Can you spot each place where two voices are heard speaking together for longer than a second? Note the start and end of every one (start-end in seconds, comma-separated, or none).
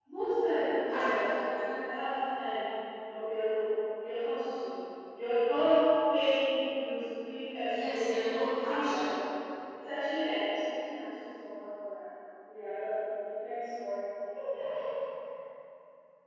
7.7-8.9